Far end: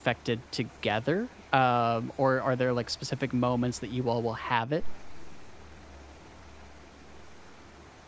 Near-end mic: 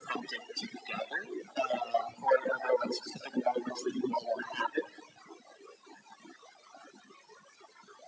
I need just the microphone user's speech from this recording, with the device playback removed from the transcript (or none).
none